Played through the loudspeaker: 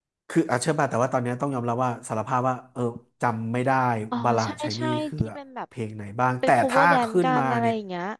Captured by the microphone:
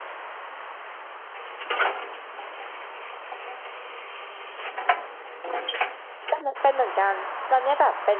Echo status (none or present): none